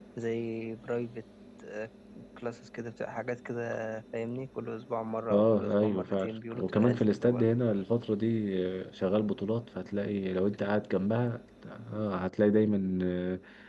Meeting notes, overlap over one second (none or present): present